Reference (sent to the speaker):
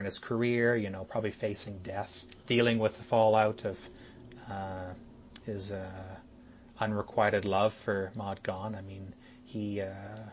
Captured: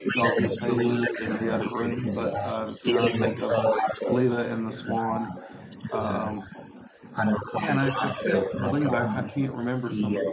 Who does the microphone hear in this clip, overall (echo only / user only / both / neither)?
both